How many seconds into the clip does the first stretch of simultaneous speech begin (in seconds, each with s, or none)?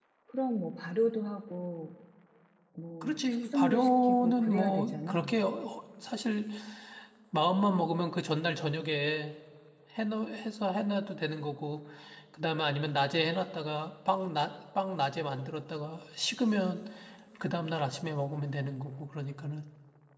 3.0 s